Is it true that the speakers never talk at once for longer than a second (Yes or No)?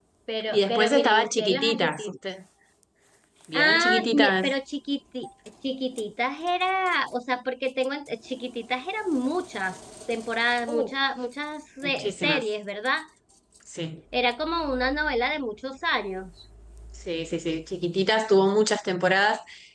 No